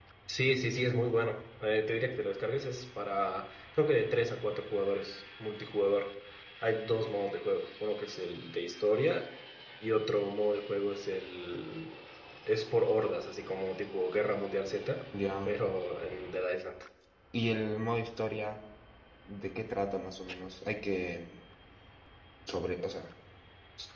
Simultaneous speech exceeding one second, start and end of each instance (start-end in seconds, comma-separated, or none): none